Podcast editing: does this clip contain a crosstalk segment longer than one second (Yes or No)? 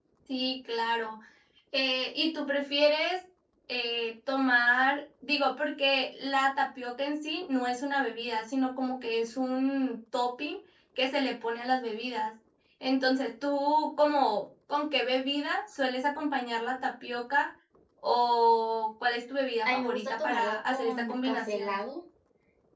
Yes